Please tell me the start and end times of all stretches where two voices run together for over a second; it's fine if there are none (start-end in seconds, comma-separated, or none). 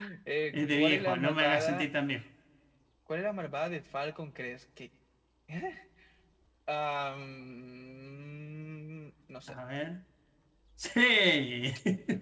0.5-1.9